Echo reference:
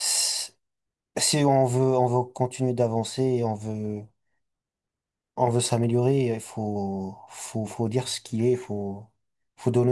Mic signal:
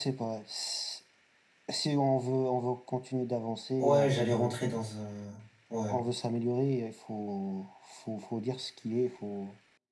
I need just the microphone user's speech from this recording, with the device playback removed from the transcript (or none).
Ouais, j'allais rentrer dans un, ouais,